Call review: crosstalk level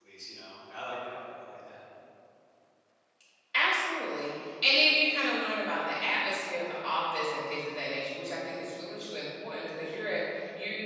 none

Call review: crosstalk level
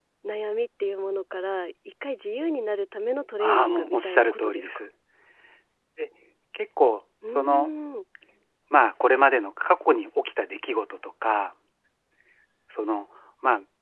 present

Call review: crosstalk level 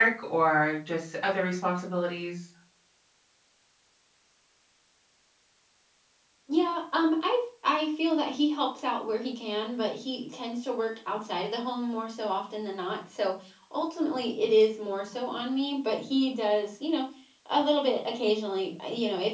none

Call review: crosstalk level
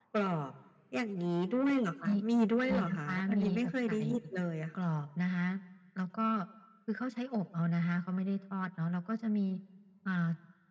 present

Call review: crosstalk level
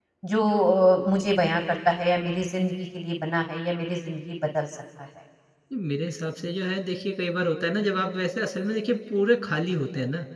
none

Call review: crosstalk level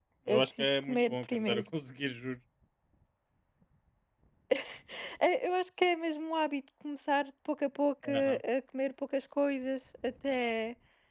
present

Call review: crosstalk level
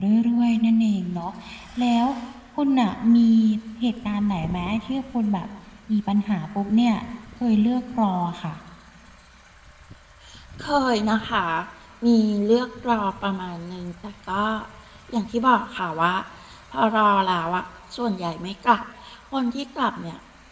none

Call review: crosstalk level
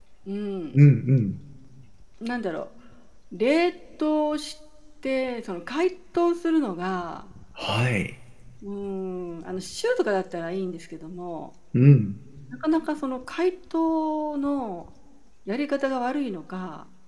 none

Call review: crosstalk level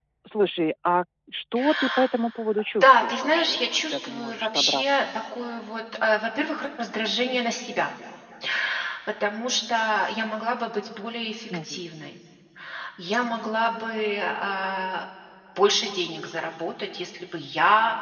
present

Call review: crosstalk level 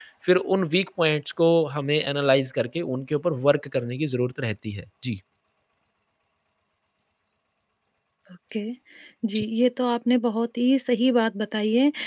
none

